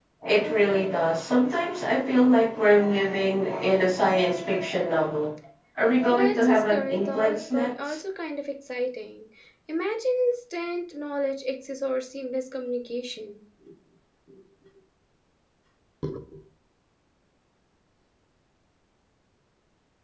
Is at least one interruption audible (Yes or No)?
Yes